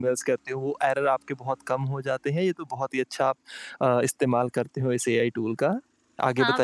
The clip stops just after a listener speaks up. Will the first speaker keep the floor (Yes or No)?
No